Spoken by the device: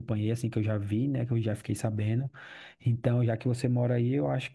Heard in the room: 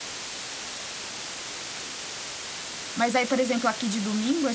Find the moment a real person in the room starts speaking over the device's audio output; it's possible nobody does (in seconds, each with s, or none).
2.9 s